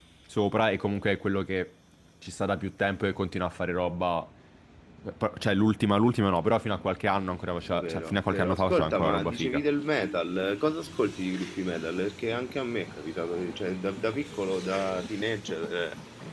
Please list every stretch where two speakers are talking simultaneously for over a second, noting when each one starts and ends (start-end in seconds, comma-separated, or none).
7.8-9.6